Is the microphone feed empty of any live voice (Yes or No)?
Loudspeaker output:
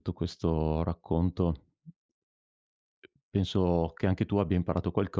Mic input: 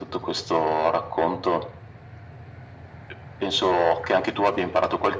Yes